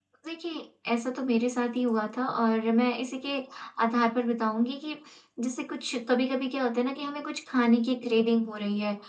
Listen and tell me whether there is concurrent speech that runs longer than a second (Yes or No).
No